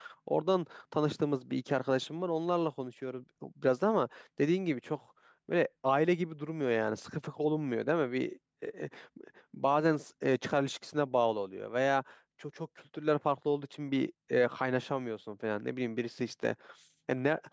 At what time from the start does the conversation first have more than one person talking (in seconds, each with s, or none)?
none